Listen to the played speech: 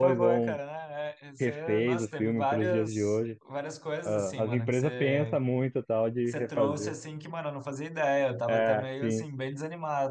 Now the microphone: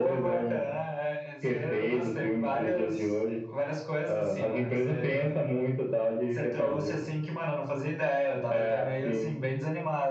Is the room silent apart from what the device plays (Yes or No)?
Yes